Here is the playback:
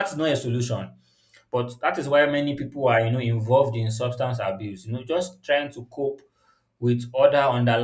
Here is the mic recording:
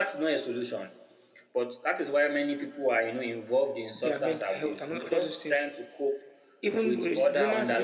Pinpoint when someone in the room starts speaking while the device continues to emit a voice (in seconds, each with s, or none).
3.9 s